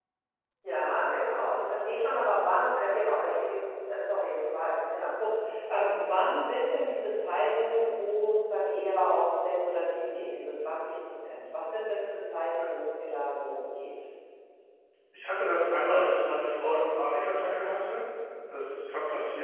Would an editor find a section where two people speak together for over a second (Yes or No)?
No